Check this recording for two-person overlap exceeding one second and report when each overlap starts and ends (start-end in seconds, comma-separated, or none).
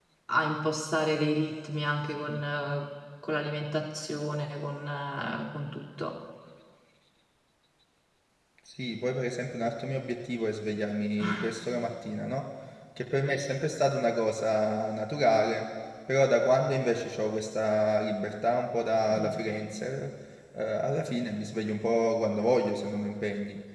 none